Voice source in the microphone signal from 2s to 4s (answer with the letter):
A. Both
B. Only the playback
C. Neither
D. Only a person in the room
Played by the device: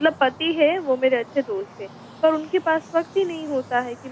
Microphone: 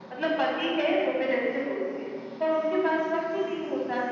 B